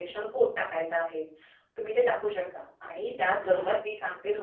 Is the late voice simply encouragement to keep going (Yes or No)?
Yes